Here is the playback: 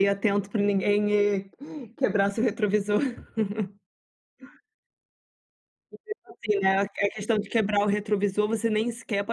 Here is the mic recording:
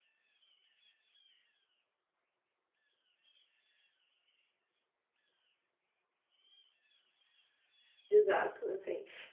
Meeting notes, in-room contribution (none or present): present